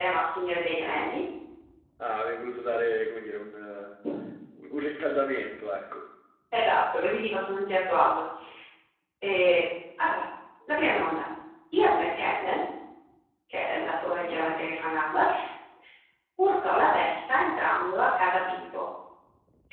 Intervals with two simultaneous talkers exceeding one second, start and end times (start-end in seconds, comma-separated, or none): none